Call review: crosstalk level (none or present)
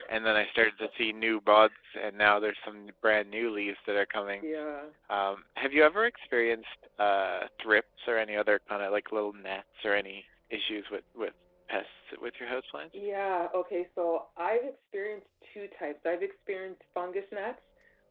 none